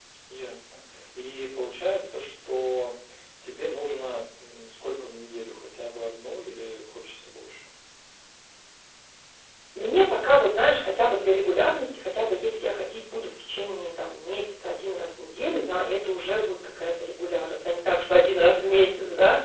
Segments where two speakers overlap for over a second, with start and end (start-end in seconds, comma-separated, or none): none